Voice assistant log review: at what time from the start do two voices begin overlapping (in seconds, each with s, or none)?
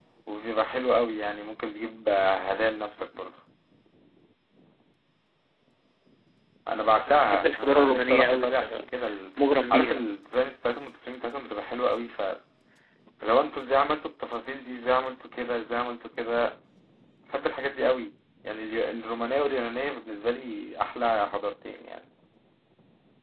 7.3 s